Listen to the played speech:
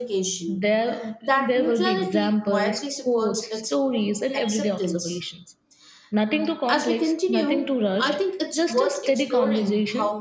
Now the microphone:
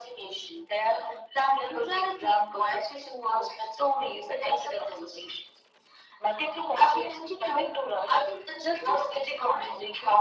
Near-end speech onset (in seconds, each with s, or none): none